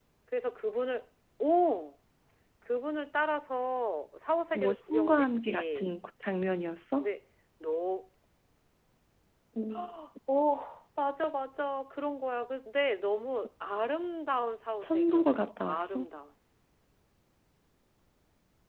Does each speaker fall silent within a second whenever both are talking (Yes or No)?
No